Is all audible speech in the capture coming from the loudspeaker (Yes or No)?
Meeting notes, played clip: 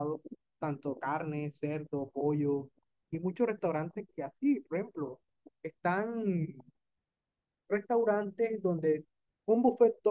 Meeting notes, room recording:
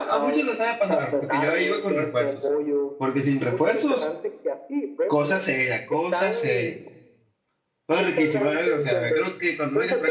No